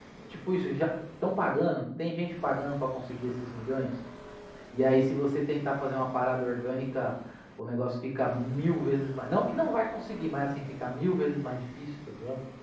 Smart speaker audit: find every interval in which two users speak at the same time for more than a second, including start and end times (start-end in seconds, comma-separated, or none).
none